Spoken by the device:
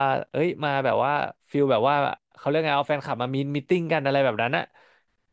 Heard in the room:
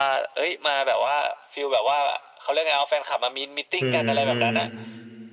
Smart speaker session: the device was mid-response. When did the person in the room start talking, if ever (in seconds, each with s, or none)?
3.8 s